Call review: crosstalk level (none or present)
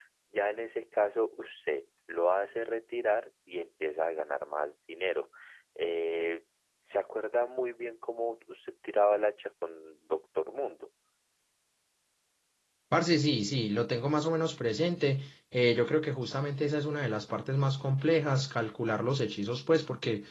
none